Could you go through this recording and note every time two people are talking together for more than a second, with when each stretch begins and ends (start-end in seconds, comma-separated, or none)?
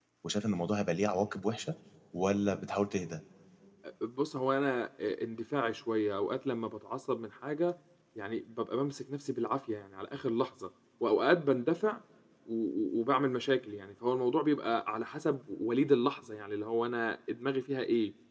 none